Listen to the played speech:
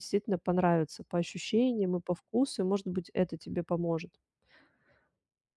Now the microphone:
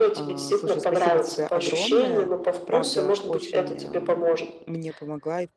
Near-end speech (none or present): present